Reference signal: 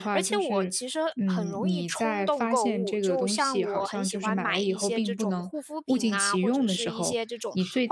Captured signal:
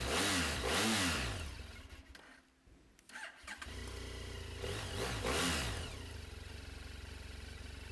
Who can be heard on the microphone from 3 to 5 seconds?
neither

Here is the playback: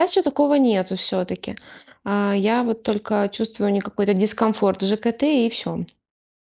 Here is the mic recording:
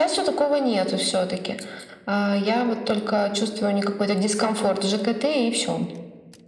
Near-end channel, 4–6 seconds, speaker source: echo only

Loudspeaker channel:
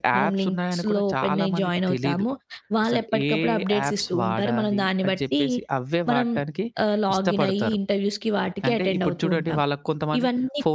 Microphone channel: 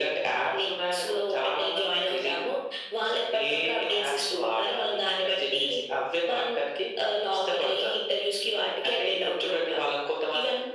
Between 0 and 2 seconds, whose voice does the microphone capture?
echo only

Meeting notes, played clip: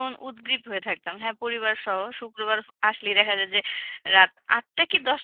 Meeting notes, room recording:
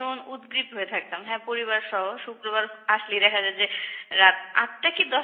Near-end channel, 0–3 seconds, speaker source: echo only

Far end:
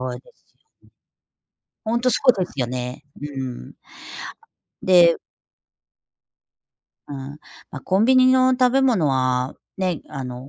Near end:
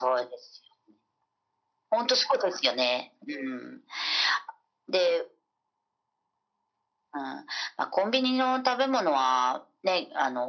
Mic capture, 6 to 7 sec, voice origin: neither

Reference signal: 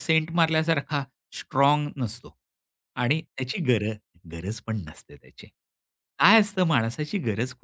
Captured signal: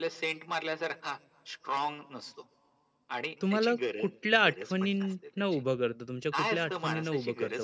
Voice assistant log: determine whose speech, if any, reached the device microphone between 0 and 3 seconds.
echo only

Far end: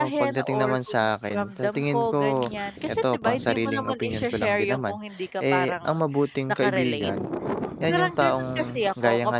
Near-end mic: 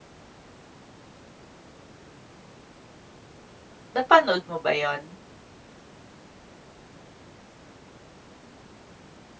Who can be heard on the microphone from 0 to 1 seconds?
neither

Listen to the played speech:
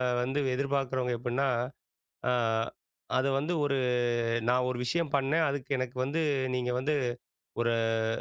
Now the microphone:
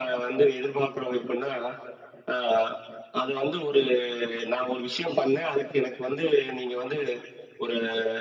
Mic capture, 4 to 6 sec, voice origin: echo only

